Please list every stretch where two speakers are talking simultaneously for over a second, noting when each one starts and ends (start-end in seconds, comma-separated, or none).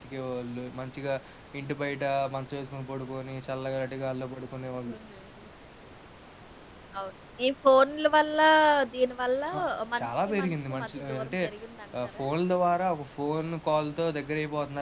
10.0-11.3